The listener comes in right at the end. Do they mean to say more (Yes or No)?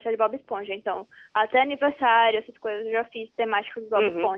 No